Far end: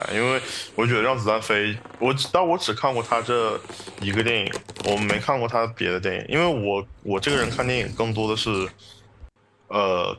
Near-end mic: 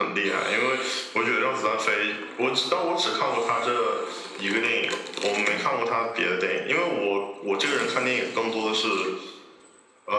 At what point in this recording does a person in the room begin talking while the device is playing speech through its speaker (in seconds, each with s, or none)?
none